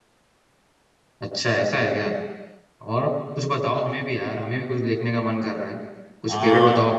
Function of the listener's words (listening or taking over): listening